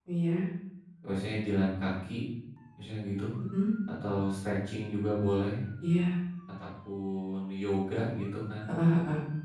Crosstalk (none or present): none